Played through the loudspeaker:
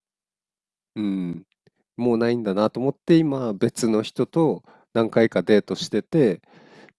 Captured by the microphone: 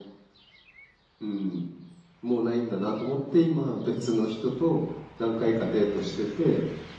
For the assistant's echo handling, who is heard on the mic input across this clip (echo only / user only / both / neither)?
echo only